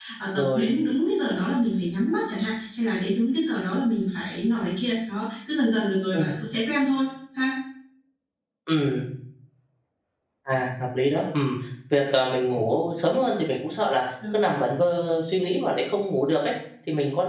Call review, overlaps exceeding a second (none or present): none